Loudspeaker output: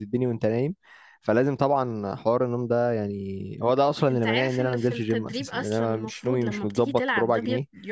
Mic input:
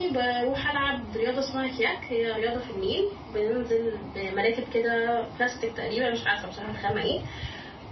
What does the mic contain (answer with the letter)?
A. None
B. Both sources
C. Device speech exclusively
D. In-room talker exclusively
D